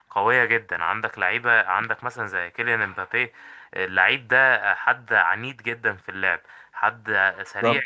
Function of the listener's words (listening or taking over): listening